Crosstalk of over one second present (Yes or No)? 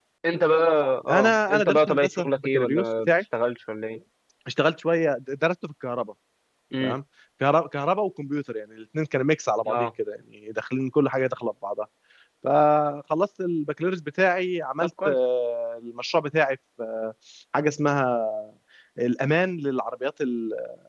Yes